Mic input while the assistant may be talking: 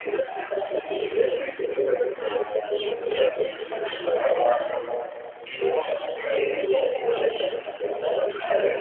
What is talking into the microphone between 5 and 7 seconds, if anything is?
echo only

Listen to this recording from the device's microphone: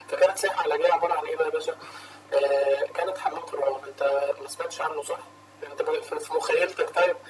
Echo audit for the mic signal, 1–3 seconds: echo only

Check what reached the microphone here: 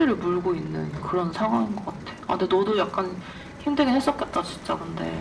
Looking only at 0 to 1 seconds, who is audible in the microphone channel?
echo only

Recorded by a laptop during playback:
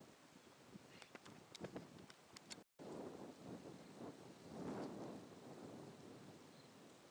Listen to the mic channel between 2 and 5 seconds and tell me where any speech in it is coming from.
neither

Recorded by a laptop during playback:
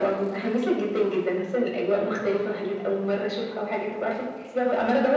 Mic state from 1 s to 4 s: echo only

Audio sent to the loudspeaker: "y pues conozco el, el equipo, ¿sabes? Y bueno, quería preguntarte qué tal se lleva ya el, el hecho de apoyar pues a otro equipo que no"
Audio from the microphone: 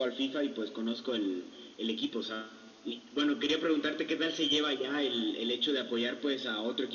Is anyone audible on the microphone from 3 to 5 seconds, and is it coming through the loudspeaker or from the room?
echo only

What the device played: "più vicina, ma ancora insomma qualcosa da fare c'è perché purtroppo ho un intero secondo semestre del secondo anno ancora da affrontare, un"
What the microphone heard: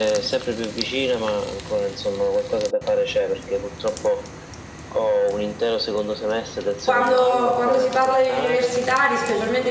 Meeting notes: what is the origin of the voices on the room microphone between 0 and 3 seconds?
echo only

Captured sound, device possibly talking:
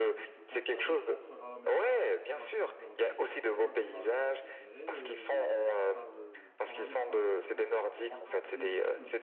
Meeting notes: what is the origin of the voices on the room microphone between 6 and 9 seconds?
both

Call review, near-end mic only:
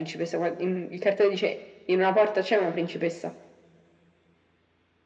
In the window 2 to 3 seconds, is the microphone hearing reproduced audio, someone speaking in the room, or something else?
echo only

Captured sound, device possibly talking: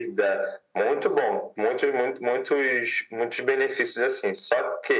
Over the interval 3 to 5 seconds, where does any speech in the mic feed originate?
echo only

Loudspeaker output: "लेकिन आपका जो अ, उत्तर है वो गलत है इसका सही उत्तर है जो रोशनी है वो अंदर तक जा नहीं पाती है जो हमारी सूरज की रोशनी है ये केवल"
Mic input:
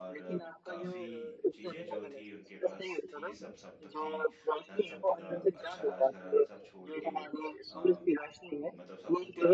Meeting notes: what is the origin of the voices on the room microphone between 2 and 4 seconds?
both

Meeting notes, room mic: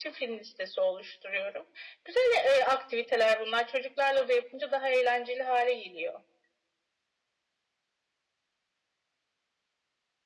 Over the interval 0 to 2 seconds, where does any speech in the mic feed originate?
echo only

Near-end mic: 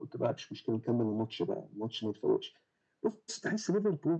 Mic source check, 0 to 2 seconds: echo only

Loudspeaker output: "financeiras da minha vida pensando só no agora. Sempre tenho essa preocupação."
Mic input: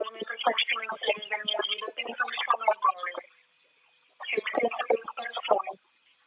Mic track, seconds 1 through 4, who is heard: echo only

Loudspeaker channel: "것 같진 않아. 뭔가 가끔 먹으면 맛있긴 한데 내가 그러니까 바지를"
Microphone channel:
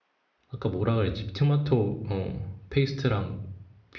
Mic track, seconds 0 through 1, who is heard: user only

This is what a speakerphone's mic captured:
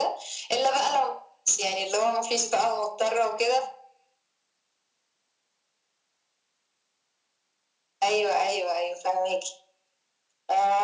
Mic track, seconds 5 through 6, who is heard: neither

